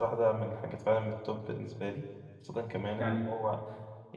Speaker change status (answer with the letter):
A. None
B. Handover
A